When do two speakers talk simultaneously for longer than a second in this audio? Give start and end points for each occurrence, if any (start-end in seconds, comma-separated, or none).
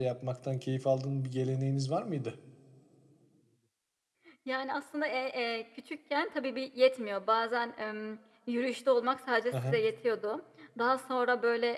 none